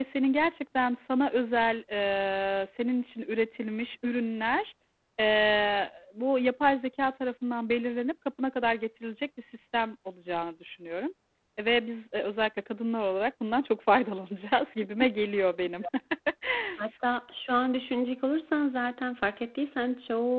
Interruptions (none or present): none